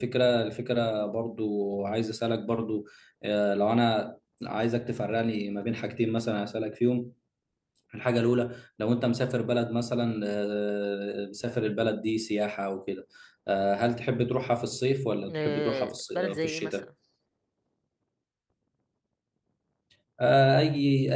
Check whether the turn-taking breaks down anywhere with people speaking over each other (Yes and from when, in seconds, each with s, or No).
Yes, from 15.3 s